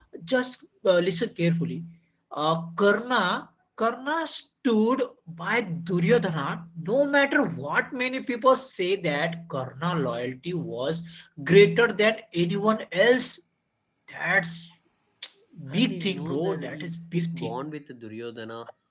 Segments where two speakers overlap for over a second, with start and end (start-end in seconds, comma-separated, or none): 15.7-17.6